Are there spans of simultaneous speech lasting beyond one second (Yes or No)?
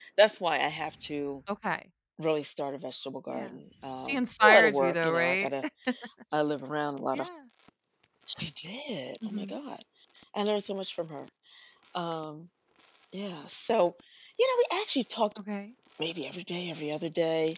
Yes